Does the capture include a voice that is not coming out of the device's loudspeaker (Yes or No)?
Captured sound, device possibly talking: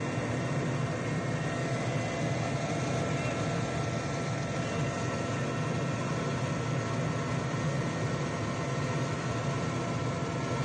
No